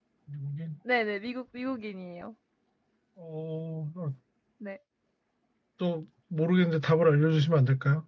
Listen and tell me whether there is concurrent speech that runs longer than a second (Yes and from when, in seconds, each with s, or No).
No